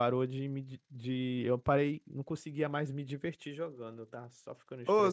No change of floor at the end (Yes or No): No